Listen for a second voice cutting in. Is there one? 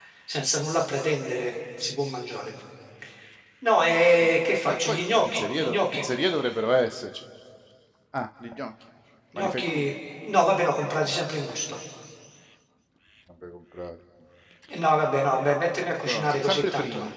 Yes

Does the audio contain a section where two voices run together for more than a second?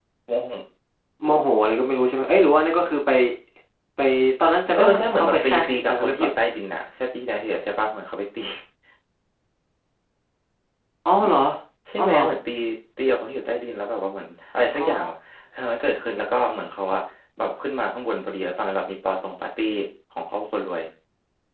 Yes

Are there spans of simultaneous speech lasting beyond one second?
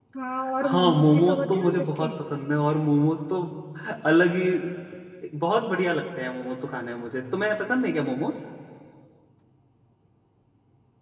Yes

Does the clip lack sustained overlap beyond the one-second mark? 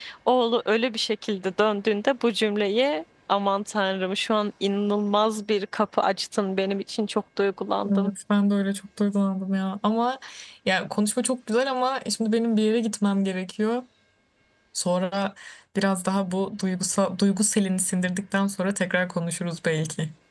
Yes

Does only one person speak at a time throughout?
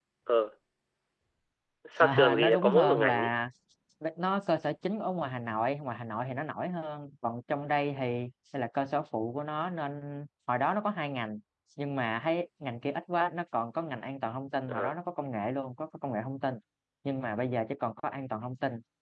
No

